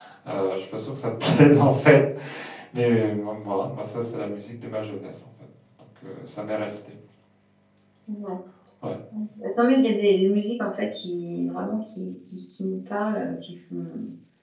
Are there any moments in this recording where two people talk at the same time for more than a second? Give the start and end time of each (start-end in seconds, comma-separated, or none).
none